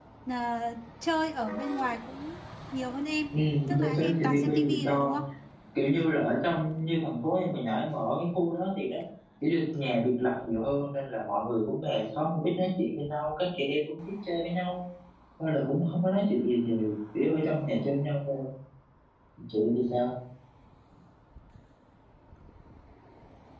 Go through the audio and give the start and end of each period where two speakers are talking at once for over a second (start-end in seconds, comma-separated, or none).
3.8-5.1